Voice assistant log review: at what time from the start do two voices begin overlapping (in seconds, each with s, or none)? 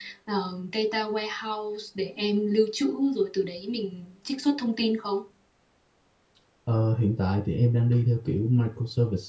none